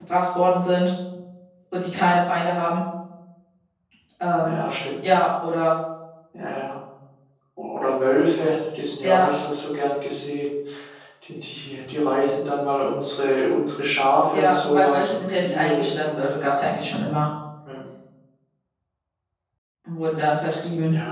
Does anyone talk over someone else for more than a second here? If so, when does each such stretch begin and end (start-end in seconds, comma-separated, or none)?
14.3-16.0